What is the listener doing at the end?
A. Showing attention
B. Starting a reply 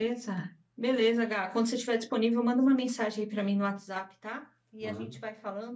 A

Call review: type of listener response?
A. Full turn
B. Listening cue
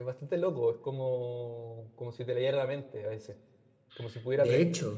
B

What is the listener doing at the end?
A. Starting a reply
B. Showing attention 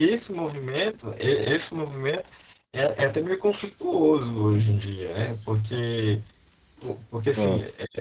B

